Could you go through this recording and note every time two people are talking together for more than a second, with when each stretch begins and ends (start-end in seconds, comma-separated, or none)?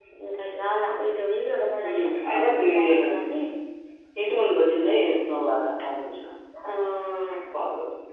1.8-3.2